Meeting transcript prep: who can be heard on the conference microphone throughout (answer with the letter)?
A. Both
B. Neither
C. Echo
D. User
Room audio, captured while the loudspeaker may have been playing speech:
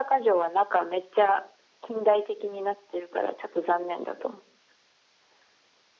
C